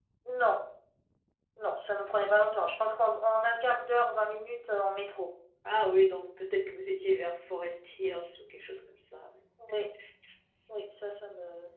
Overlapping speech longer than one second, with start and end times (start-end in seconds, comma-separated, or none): none